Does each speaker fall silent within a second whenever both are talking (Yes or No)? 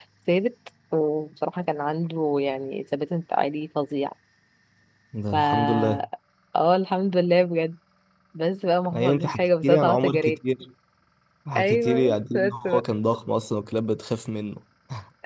No